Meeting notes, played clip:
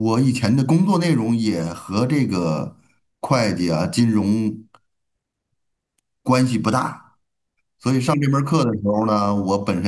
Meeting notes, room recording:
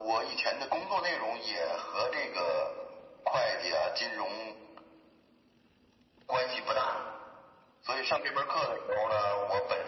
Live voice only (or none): none